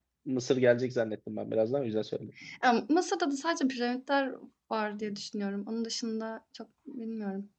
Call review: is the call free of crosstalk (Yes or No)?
Yes